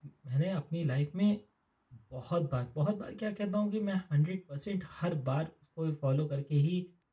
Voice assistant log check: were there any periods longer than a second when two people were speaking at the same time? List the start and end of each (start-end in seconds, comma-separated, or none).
none